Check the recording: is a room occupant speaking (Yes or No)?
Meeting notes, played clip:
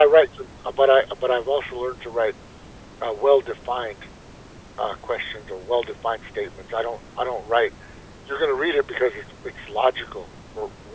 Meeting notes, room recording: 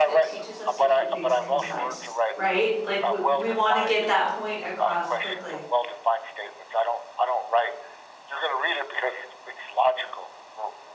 Yes